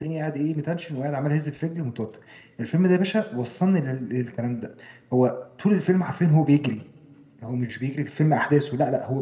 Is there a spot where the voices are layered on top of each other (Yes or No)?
No